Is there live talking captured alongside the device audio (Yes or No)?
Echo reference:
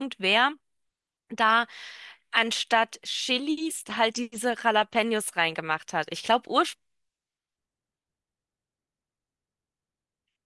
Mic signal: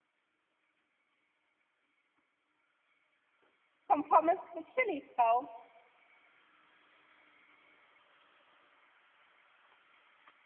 Yes